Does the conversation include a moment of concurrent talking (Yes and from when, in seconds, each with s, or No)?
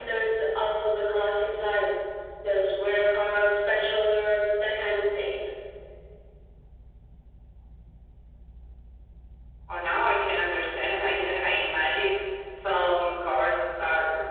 No